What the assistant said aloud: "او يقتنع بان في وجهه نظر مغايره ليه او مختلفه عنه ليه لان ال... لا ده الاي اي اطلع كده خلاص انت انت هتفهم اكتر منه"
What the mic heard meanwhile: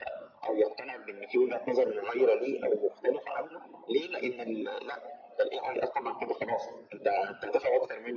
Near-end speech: none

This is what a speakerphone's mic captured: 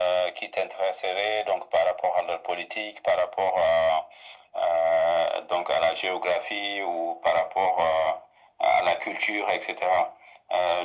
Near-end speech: none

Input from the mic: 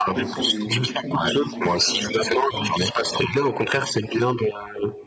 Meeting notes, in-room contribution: present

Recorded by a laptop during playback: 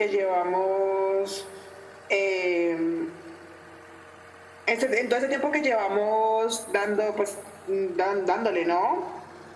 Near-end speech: none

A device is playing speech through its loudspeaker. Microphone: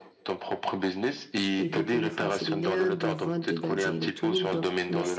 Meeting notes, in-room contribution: present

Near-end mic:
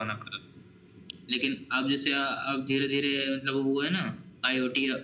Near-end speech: none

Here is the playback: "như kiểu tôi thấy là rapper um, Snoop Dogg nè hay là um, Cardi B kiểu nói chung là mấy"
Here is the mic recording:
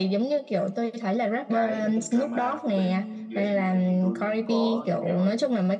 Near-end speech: present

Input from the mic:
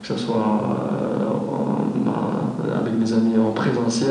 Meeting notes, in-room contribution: none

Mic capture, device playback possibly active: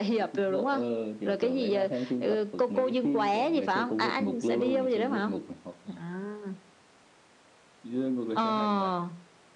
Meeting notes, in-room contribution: none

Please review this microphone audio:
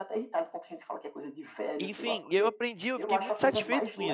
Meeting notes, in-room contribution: present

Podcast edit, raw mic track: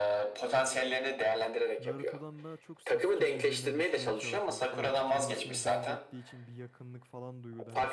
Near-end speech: present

